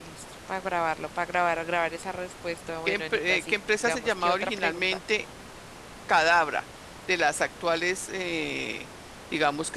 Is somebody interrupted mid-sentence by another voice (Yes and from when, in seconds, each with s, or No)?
Yes, from 2.9 s